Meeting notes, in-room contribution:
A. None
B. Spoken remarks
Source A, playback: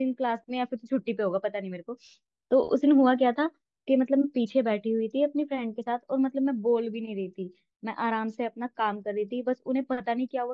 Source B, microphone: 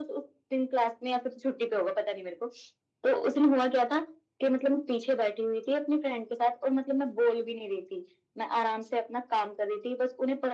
A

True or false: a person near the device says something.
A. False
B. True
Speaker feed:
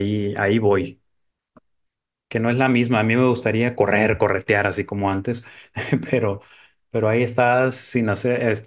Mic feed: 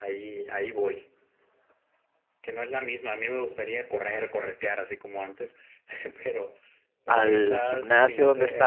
B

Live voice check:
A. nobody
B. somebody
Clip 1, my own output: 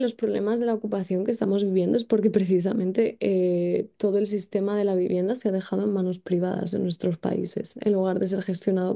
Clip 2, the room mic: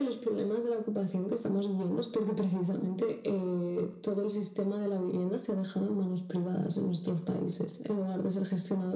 A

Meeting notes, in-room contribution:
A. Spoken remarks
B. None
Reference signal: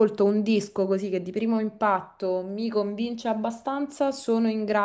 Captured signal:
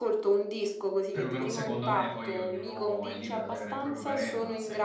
A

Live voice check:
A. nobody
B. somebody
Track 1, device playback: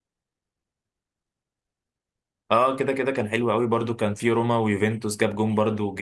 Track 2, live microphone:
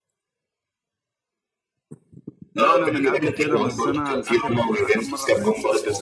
B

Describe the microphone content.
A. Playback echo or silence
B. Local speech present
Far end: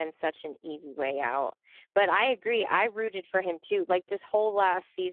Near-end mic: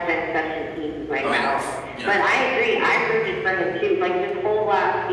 B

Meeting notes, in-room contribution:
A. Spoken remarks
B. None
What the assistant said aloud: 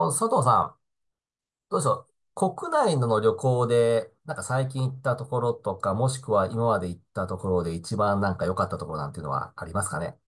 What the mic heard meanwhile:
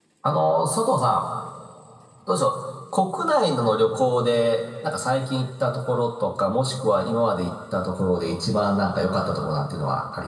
B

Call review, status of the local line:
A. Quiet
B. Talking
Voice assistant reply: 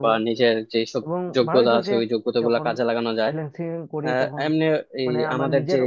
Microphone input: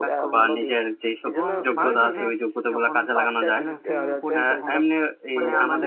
B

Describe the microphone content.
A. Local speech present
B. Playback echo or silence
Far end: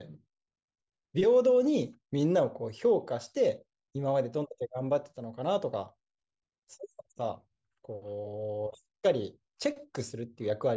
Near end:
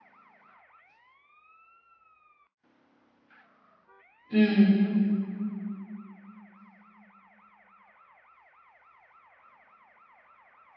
A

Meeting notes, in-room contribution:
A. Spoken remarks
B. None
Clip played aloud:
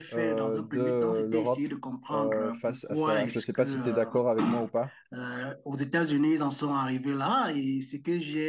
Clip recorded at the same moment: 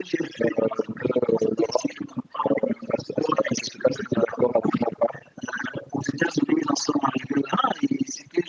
B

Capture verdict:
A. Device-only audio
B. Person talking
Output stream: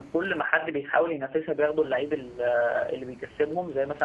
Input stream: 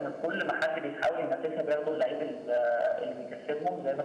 A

